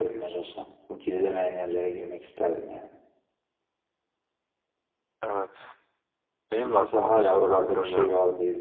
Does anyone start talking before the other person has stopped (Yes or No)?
Yes